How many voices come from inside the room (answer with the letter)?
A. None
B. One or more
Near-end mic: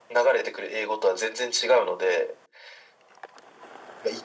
A